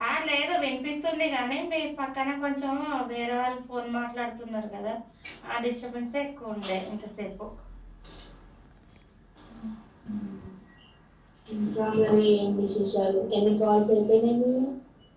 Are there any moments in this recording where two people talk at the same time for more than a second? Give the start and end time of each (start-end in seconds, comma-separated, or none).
none